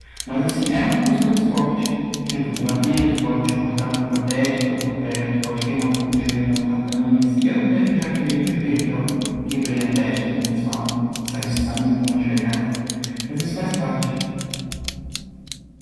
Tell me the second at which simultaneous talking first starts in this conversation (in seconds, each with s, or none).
none